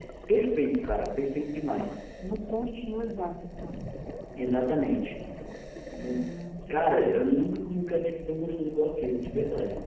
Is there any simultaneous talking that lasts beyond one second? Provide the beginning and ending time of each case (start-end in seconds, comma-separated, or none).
6.7-8.2